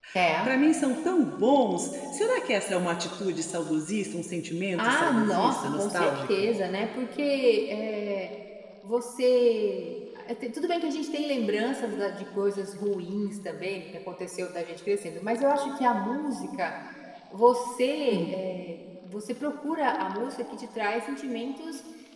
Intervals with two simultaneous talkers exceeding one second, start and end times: 4.8-6.5

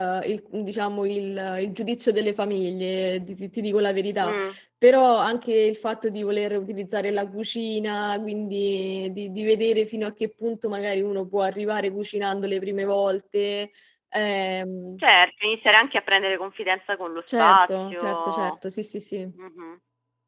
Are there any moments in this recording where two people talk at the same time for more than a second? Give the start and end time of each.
17.3-18.5

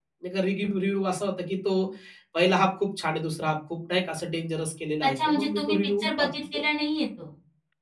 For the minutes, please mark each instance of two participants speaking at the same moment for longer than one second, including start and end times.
5.0-6.6

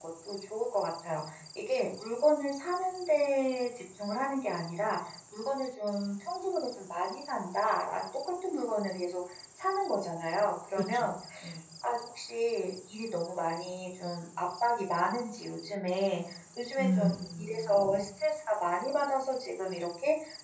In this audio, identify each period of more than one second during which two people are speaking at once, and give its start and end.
16.8-18.1

